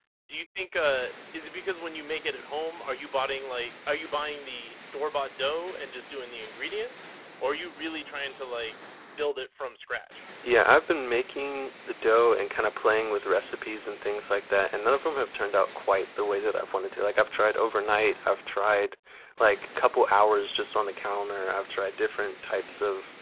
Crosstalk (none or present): none